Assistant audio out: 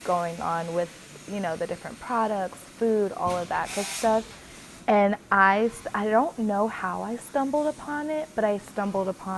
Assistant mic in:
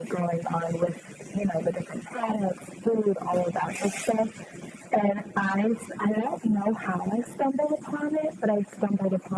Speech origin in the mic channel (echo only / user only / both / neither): echo only